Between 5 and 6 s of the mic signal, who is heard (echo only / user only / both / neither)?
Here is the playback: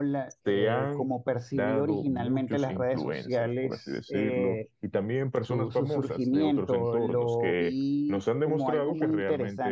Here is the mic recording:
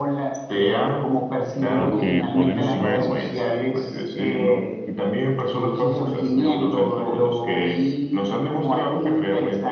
echo only